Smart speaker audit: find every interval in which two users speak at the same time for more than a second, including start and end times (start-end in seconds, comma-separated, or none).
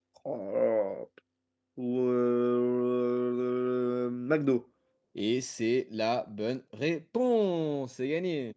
none